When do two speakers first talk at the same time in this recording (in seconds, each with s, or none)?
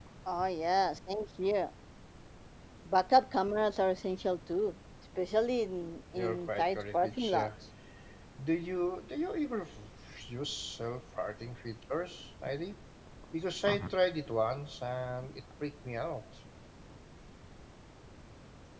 6.2 s